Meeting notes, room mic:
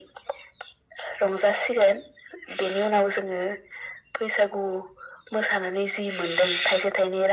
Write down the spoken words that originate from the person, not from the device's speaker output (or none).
none